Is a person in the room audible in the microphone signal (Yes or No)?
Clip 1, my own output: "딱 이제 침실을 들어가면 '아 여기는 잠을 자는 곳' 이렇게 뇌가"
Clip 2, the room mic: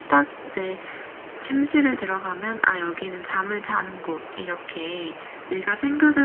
No